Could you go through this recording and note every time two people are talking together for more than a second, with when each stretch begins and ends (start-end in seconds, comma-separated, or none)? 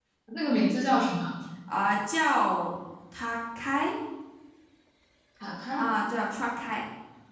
none